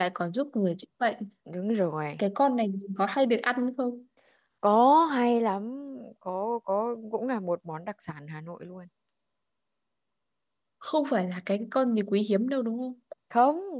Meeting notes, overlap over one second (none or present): none